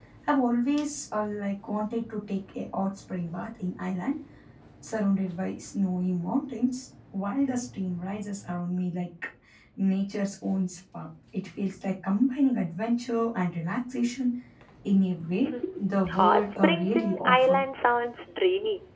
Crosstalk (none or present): present